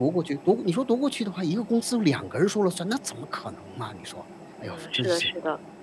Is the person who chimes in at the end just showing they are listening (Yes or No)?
No